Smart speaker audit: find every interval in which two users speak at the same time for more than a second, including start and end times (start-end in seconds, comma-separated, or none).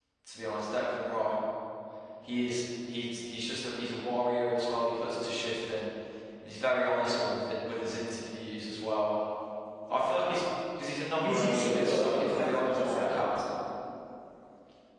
11.2-13.2